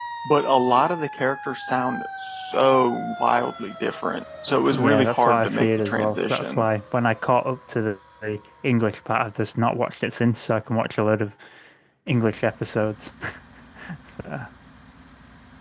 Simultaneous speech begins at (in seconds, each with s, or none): 4.7 s